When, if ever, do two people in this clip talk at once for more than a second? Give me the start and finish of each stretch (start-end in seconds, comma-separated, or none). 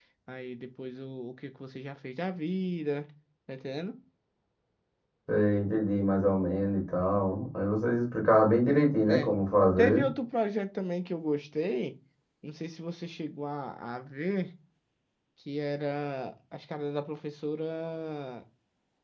none